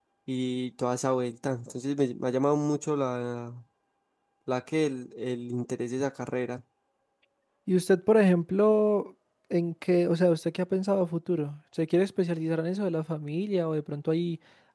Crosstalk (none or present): none